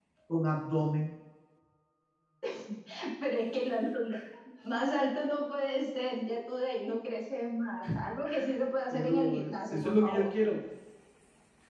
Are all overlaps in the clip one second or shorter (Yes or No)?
No